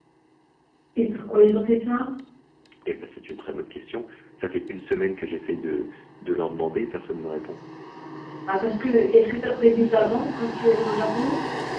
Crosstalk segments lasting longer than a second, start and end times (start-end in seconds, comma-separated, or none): none